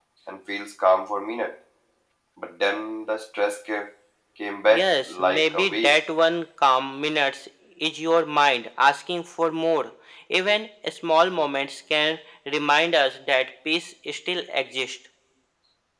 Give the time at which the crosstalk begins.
5 s

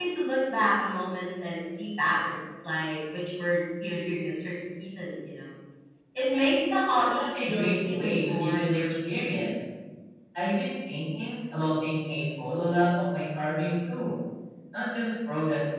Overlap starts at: 7 s

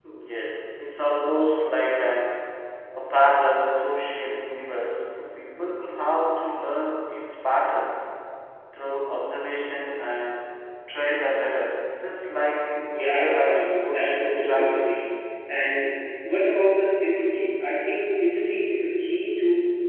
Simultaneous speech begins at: 13 s

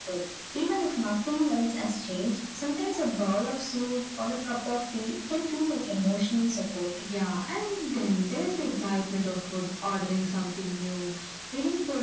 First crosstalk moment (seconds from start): none

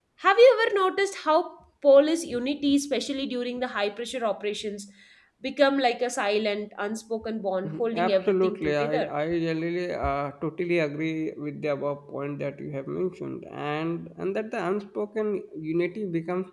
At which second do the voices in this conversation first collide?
8 s

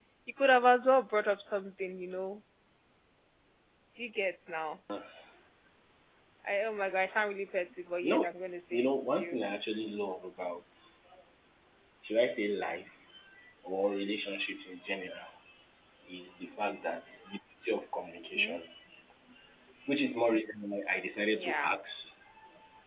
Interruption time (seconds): 8 s

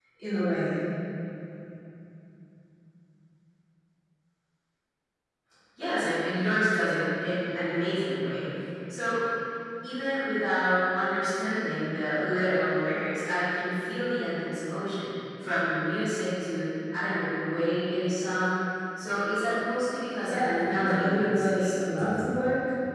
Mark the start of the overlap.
20 s

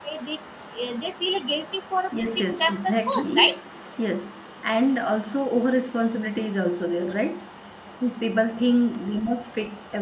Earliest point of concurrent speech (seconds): 2 s

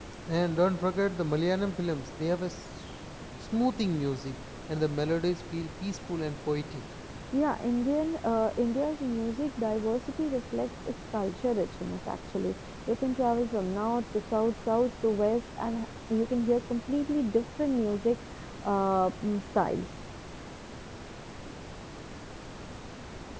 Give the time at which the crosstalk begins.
none

